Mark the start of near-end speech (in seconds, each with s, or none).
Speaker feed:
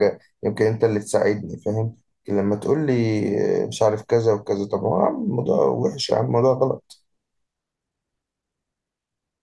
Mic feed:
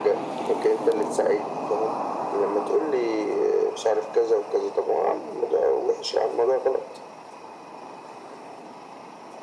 none